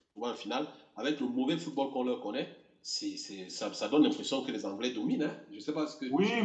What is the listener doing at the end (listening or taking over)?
taking over